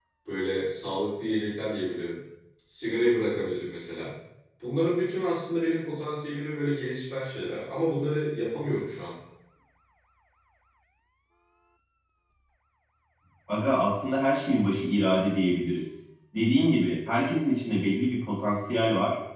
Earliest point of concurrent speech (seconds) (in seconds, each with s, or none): none